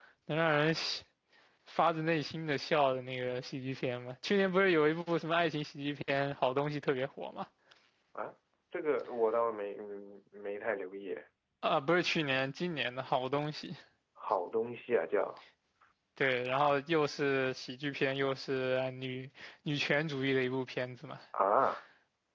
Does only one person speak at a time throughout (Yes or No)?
Yes